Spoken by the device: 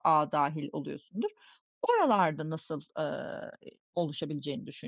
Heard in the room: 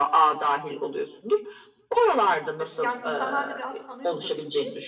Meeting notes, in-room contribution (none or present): present